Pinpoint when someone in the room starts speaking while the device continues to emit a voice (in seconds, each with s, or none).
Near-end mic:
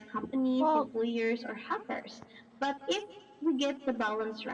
0.6 s